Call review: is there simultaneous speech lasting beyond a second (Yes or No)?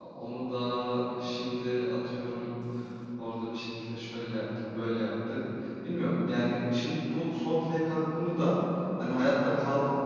No